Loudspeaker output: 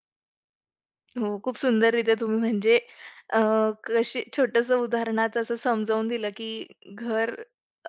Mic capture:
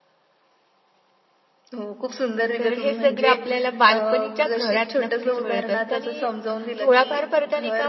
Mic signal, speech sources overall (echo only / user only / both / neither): both